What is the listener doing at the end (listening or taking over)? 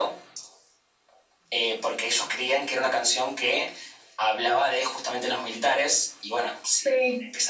listening